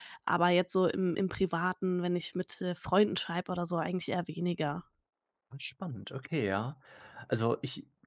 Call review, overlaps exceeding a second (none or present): none